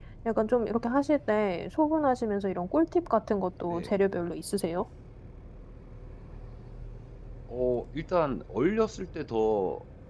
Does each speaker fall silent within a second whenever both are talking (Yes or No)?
Yes